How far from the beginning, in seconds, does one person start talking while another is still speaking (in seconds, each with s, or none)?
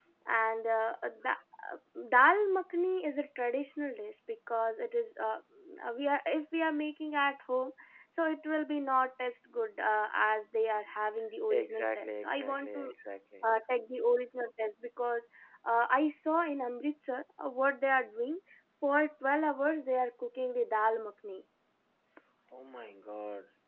11.5 s